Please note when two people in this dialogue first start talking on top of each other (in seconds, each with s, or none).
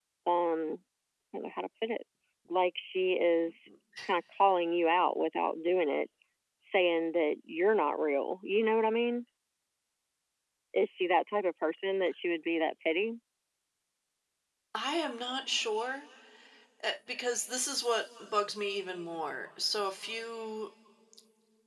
none